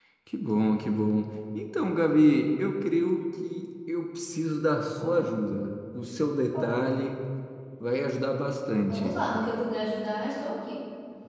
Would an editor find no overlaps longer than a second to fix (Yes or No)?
Yes